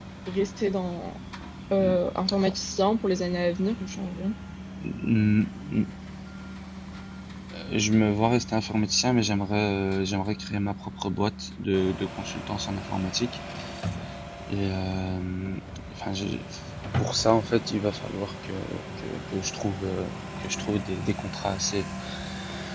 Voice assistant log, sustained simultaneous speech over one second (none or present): none